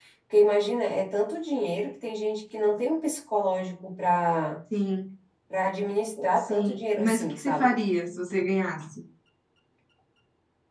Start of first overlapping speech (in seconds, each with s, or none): 6.5 s